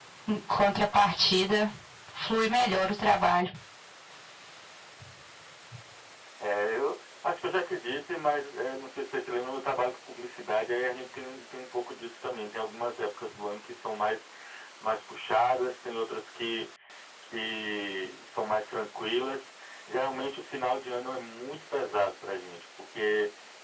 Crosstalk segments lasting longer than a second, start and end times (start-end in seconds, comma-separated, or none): none